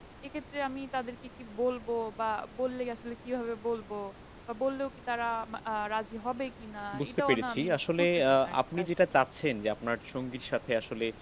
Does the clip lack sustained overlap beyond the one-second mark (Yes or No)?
No